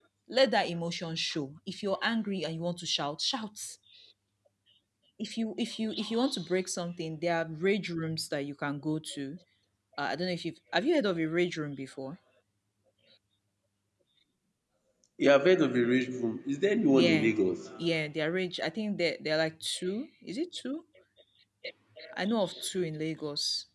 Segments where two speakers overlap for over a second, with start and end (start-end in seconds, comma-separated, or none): none